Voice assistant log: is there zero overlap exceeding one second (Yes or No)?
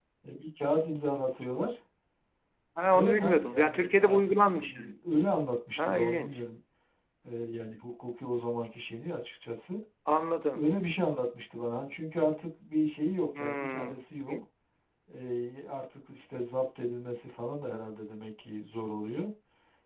No